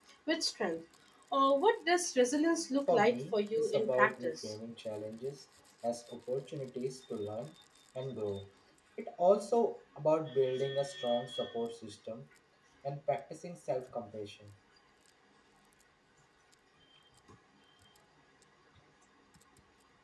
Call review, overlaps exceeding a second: present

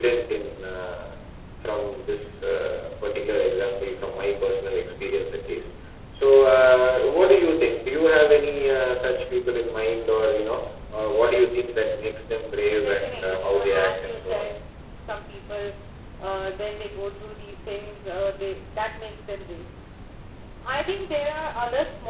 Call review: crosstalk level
present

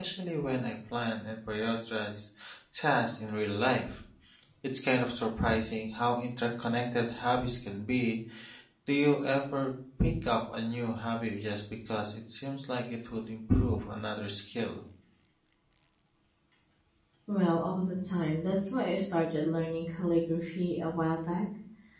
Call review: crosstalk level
none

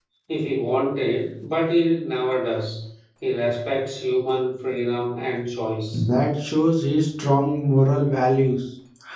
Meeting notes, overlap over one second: none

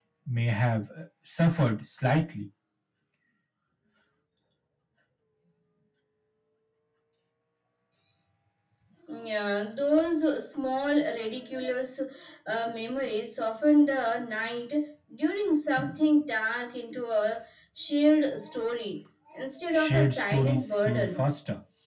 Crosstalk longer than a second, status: present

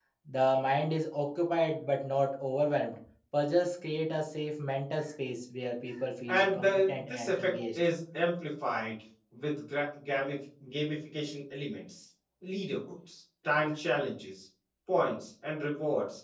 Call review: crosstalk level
present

